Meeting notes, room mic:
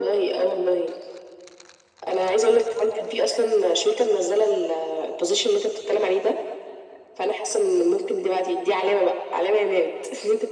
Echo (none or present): present